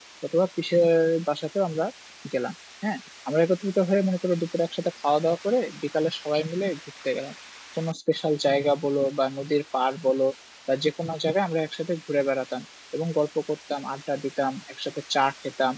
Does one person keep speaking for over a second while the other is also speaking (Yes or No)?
No